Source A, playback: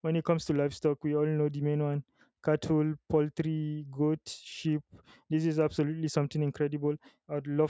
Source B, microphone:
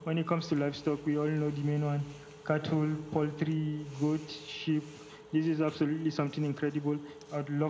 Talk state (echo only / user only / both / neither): echo only